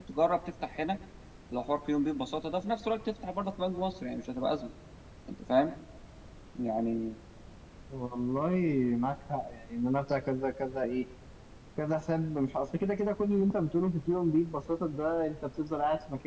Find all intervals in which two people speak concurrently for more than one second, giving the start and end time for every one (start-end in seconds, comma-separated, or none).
none